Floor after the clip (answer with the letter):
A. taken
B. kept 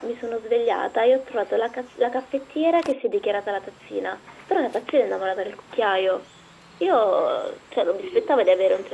B